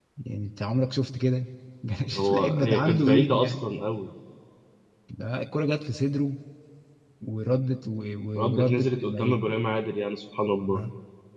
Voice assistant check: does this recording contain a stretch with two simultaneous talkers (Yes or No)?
Yes